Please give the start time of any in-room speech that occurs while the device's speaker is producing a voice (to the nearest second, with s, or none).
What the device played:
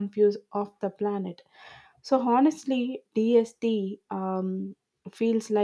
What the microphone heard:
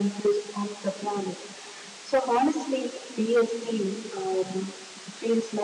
none